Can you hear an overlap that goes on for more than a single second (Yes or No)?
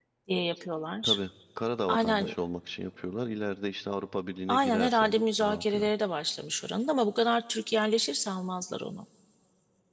Yes